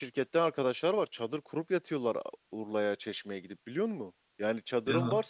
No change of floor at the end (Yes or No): Yes